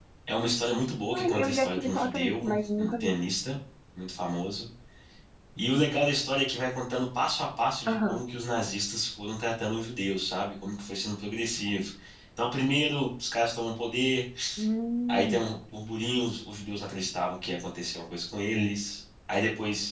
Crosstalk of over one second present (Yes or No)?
Yes